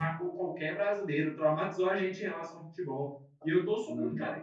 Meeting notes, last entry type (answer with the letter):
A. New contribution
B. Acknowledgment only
B